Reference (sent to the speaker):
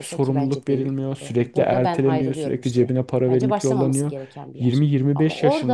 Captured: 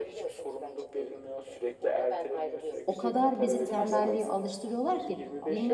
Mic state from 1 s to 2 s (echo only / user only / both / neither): echo only